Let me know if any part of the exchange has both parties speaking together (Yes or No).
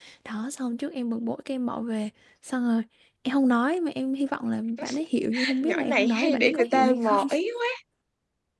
Yes